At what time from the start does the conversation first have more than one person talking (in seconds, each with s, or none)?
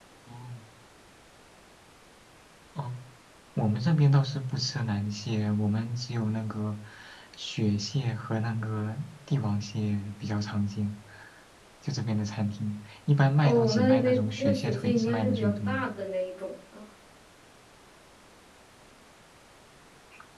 13.4 s